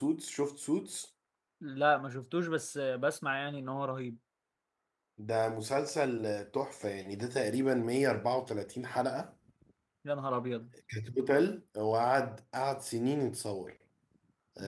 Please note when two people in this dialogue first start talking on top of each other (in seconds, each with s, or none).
none